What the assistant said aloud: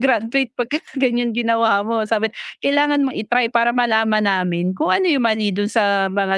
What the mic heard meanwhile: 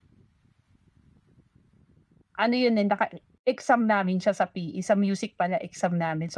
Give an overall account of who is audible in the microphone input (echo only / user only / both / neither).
user only